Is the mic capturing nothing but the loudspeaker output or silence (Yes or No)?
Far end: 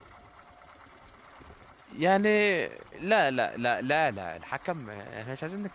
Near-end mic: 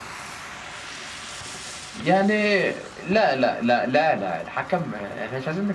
Yes